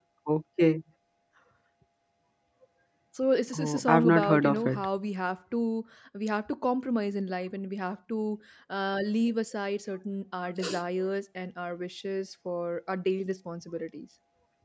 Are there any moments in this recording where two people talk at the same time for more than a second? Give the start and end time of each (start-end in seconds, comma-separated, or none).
3.5-4.8